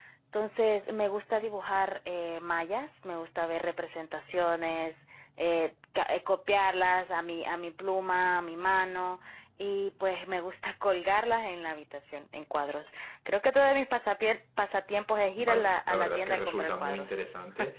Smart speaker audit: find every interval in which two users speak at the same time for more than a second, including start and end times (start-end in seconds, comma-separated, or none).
15.4-17.2